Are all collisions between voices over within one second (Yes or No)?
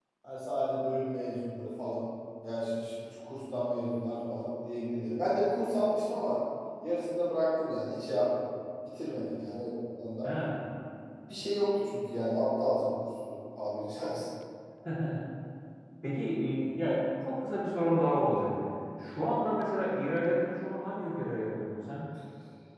Yes